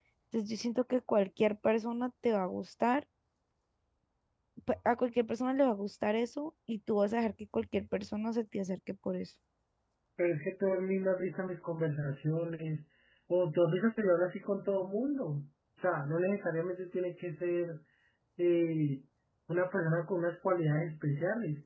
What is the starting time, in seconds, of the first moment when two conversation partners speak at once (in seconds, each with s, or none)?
none